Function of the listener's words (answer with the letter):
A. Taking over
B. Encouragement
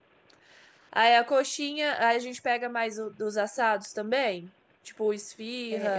A